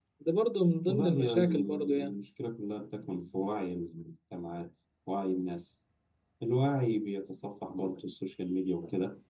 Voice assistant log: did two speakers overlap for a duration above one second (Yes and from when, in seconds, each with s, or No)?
Yes, from 0.9 s